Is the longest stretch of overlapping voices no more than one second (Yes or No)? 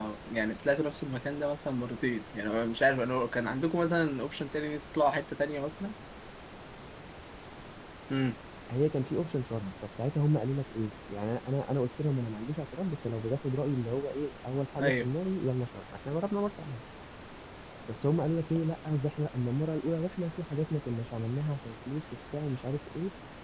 Yes